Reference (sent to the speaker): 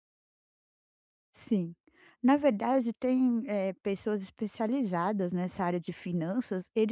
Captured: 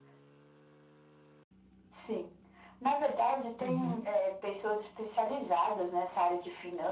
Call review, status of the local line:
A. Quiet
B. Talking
B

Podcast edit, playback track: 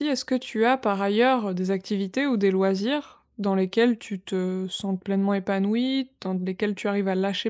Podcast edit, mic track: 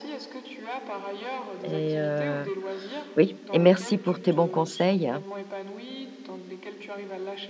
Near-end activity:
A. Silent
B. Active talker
B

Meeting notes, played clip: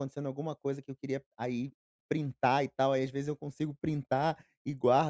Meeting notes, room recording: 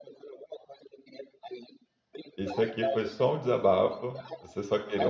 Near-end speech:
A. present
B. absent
A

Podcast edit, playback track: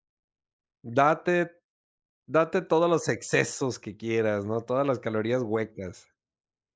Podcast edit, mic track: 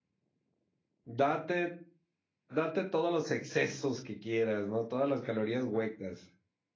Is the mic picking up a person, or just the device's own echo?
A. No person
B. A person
A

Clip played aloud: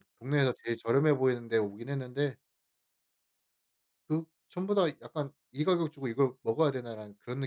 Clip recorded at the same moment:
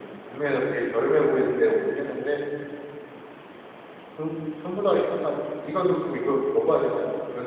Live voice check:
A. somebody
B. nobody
B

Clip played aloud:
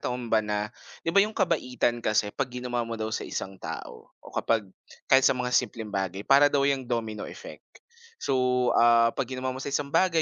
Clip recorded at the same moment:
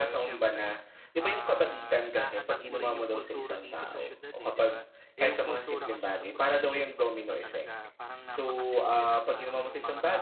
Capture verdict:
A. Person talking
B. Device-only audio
A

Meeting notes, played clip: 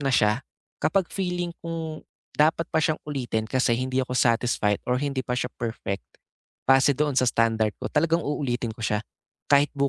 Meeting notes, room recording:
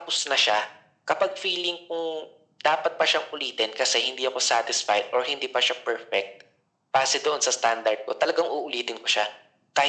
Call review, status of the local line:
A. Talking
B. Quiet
B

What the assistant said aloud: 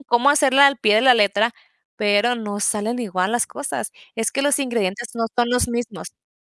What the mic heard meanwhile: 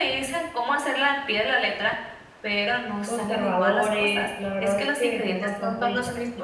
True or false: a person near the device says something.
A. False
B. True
B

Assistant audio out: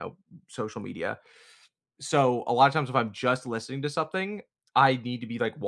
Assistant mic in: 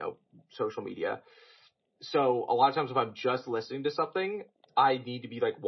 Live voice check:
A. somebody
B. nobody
B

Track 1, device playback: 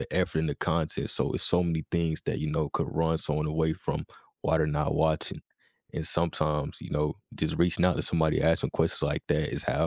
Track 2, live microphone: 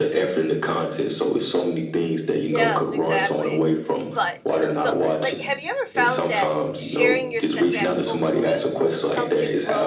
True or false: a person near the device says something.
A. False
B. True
B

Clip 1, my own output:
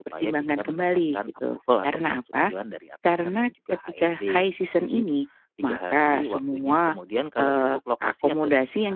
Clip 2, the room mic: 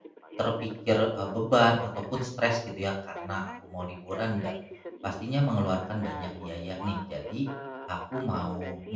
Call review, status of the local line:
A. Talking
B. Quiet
A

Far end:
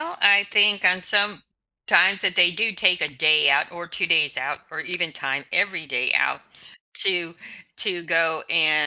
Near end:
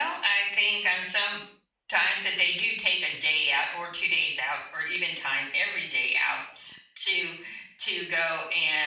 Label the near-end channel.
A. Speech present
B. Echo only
B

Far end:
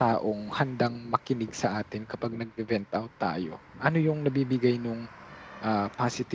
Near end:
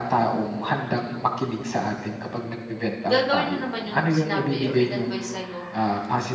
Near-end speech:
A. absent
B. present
B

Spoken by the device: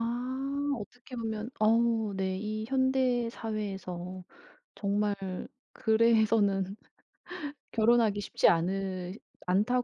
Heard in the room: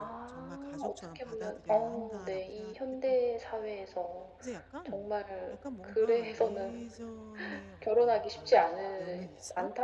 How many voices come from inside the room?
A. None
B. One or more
B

